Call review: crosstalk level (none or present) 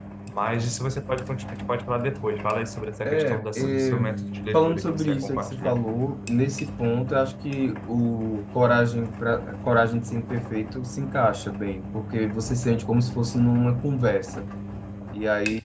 present